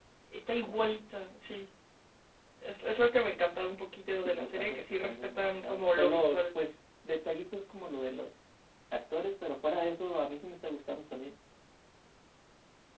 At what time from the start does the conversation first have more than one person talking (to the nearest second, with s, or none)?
4 s